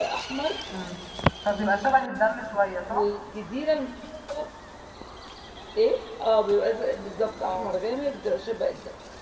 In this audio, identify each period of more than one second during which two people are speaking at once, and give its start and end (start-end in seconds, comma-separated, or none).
none